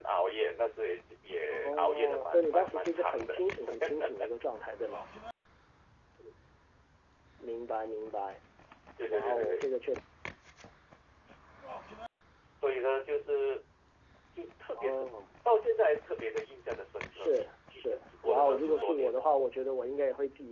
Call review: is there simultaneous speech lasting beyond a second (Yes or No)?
Yes